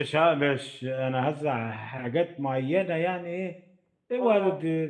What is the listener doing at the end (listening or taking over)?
listening